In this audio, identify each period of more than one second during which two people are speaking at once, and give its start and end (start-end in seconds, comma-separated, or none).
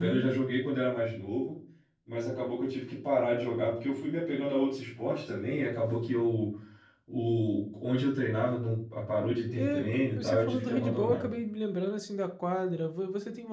9.5-11.2